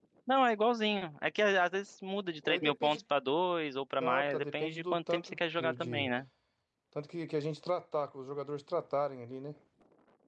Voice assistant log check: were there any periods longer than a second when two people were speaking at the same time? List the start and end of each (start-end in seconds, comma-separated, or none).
4.0-6.1